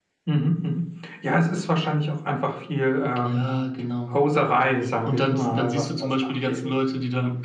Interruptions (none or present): present